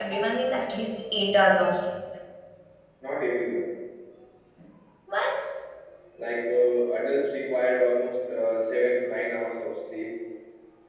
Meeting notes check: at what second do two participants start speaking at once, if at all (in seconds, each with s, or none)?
none